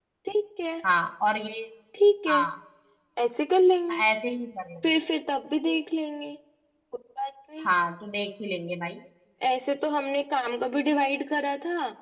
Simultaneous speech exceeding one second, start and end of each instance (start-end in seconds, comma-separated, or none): none